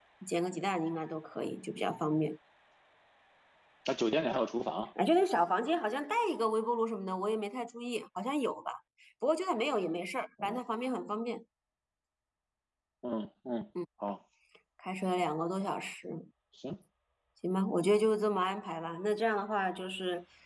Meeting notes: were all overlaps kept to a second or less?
Yes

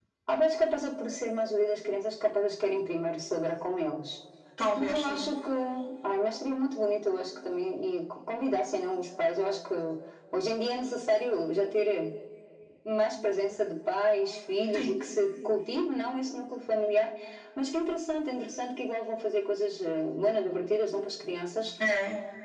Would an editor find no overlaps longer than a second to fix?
Yes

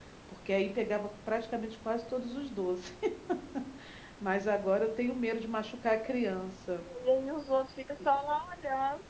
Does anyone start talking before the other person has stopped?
No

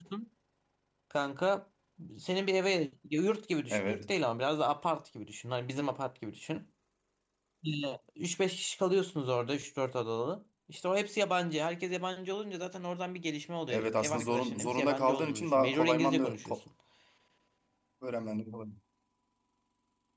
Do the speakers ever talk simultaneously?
Yes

